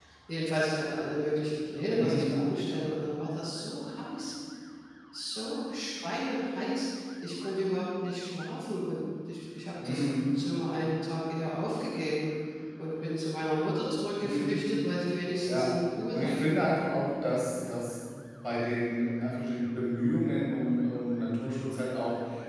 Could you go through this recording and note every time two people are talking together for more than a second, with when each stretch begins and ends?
none

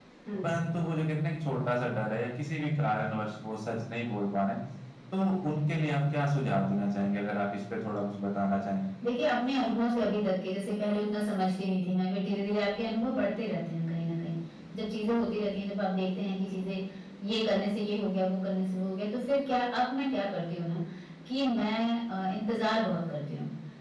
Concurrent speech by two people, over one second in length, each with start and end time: none

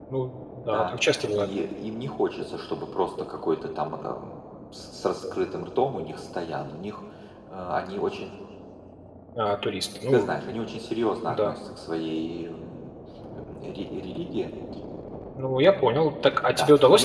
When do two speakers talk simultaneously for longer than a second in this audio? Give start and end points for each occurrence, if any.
none

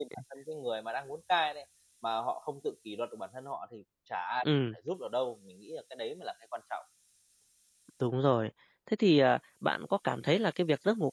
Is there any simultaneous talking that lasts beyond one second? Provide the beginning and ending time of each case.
none

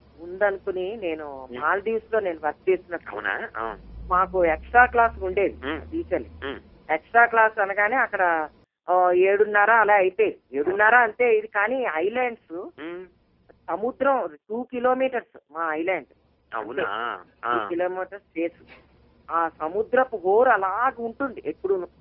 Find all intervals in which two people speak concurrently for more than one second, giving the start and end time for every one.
none

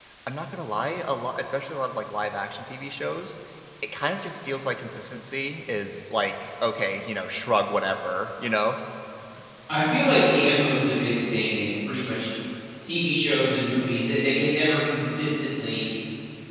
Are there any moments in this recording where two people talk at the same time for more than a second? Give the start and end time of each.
none

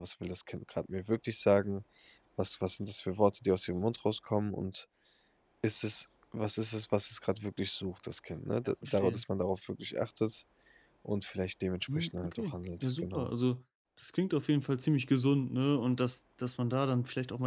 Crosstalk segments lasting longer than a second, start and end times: 12.0-13.3

